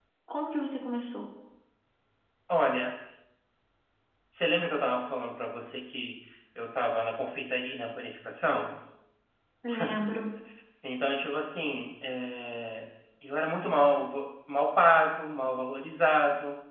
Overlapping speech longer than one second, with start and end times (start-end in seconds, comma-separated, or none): none